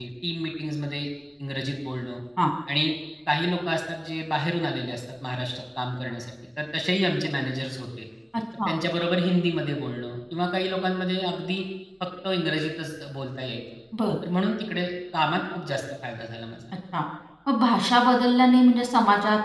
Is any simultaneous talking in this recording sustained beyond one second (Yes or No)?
No